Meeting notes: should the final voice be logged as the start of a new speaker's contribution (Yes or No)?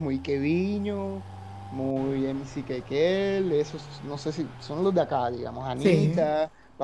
No